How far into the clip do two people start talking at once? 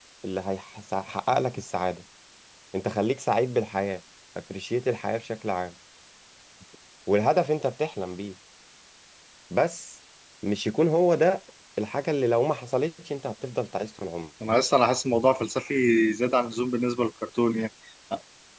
none

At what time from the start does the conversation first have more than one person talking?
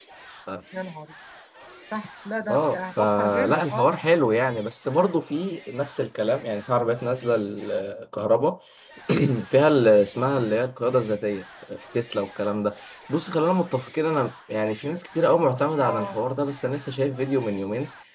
2 s

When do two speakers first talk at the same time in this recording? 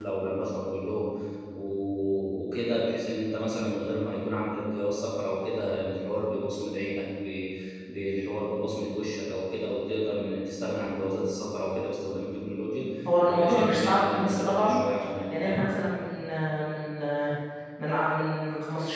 13 s

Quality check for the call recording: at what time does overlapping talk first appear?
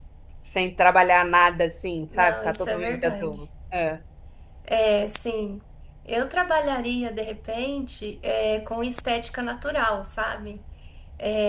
2 s

